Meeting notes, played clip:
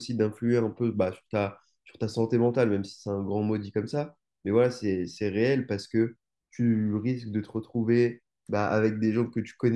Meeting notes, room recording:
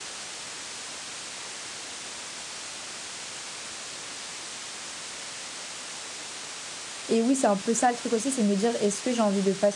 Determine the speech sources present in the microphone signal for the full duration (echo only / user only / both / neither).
user only